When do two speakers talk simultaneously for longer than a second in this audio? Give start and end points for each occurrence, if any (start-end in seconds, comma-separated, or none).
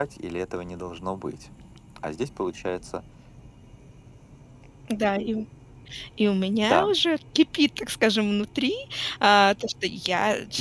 none